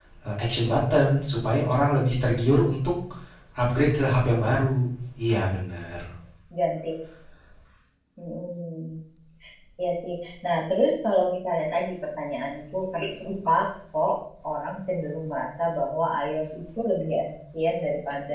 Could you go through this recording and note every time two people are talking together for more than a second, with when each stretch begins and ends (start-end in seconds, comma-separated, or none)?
none